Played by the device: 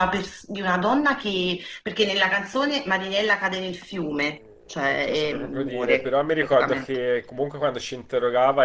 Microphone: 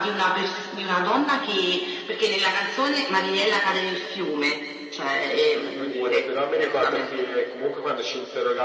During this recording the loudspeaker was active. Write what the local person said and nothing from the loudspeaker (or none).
none